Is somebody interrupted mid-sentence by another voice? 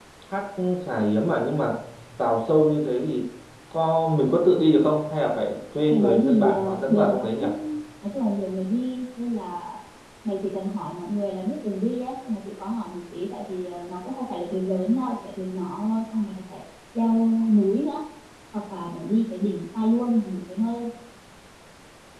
Yes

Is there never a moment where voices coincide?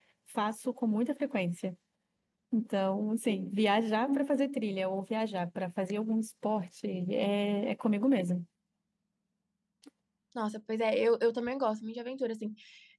Yes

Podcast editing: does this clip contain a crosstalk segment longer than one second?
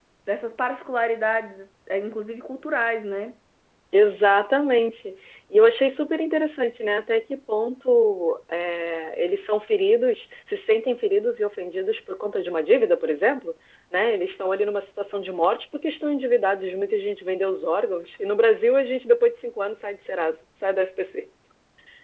No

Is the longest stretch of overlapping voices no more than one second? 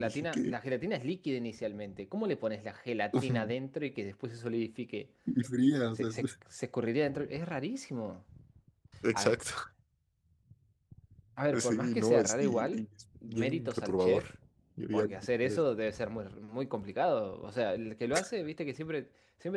No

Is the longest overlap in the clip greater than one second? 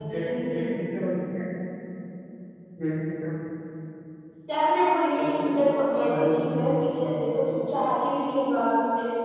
Yes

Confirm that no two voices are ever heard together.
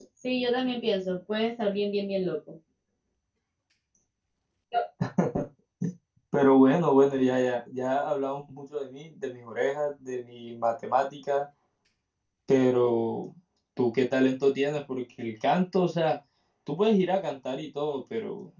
Yes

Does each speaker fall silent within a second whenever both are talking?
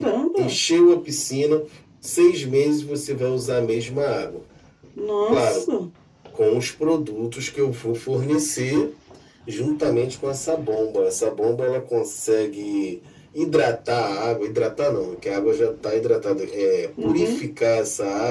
Yes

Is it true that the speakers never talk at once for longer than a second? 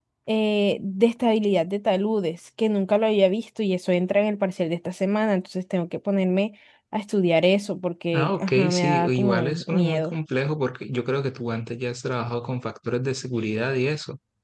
No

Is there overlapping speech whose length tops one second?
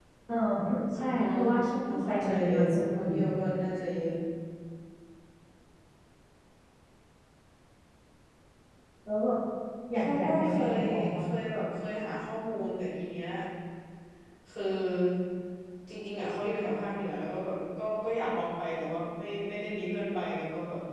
Yes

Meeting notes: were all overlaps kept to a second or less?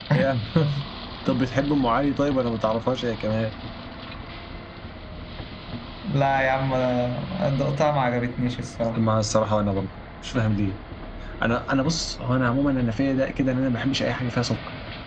Yes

